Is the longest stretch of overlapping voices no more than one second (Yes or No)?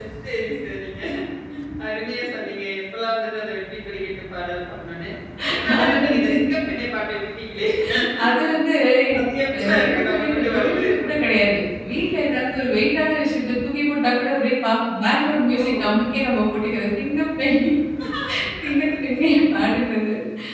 No